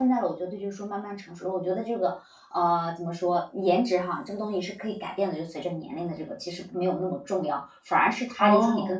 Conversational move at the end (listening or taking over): listening